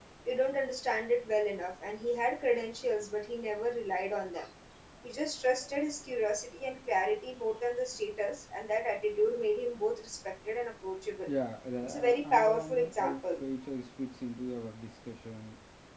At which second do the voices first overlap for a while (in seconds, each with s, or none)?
11.8 s